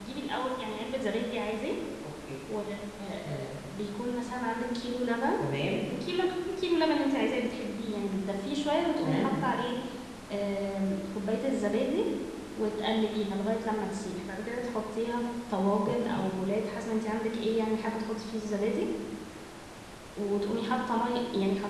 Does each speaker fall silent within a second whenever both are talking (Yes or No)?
Yes